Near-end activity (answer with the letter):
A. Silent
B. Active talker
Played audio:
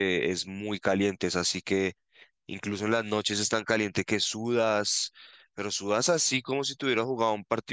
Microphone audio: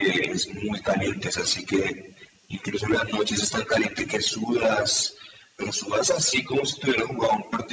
A